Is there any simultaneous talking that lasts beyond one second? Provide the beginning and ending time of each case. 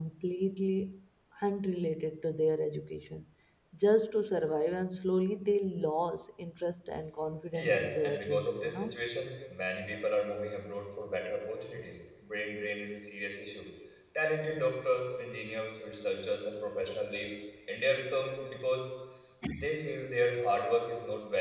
7.5-9.0

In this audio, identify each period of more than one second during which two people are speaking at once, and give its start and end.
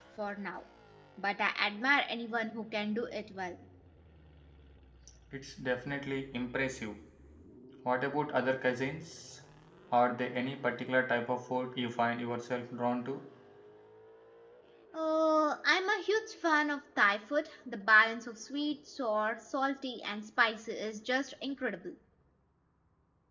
none

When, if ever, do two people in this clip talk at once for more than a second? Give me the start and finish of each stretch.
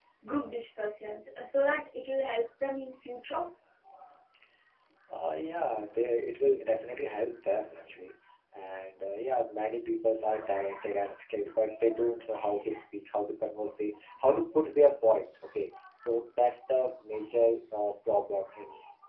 none

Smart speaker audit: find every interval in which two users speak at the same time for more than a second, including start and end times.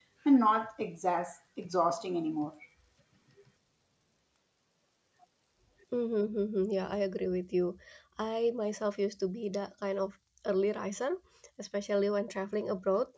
none

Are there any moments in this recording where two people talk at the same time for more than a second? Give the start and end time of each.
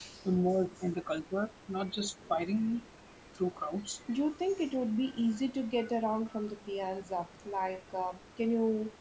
none

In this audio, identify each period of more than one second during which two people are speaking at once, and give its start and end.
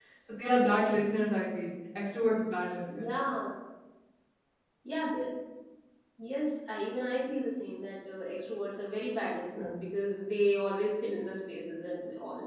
none

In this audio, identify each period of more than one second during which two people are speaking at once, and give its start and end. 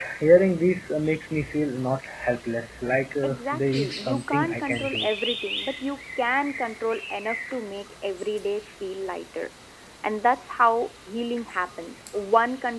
3.2-5.1

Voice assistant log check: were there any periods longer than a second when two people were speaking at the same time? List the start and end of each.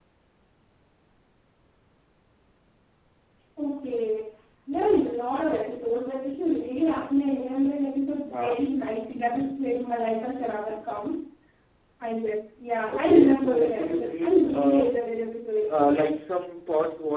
12.9-14.9

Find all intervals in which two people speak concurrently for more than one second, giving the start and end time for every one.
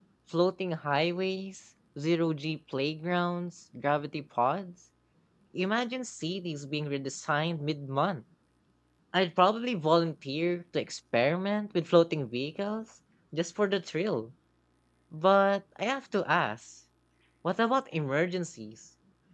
none

